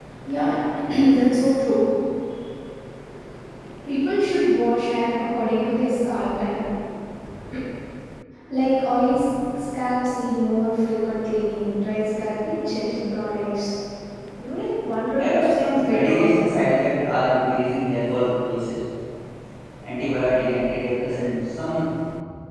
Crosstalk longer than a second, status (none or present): present